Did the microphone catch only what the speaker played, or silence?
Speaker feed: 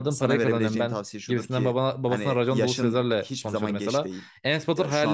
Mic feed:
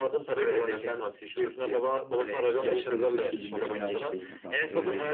No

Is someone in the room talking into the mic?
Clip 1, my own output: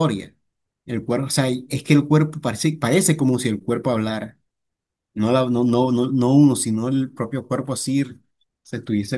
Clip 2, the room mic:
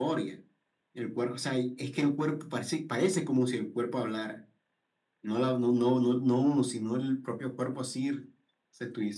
No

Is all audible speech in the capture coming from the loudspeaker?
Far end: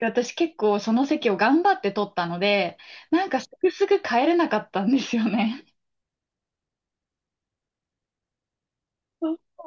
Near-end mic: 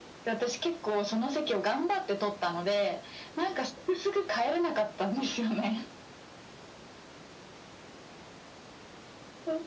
Yes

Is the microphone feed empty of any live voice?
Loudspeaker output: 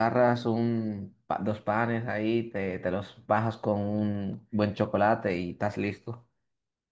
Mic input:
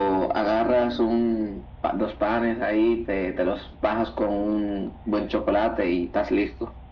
Yes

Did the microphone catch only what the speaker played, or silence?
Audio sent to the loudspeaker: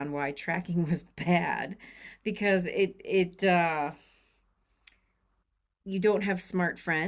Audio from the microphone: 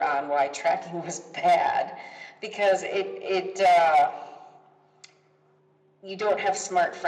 Yes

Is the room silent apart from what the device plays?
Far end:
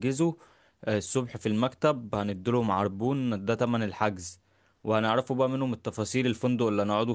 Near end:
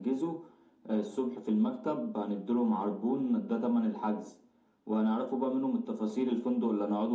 Yes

